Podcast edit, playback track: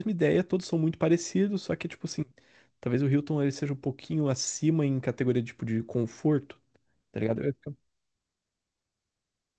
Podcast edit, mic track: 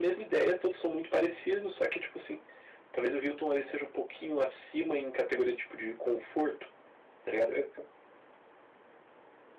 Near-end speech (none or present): none